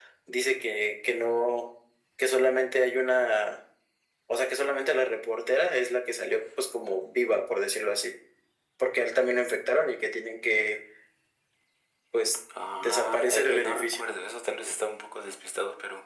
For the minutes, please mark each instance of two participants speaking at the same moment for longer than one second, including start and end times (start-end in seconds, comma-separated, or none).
12.8-14.1